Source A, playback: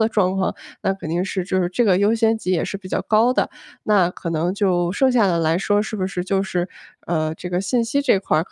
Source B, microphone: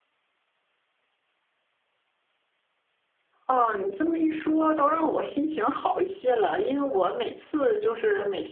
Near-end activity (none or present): present